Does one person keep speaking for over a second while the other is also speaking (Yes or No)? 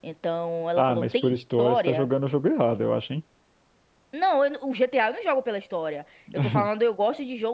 Yes